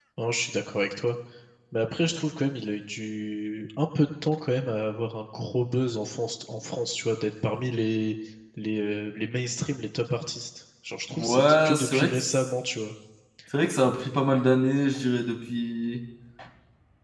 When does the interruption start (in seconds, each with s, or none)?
11.2 s